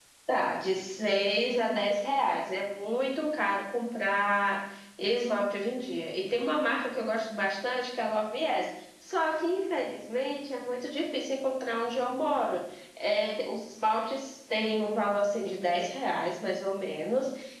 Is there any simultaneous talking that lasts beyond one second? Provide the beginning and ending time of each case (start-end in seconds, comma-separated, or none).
none